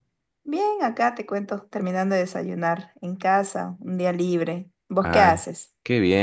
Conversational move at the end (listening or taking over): taking over